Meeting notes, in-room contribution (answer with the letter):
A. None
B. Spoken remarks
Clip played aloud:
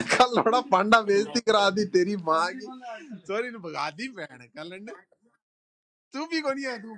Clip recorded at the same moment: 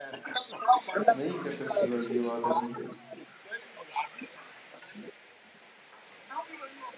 B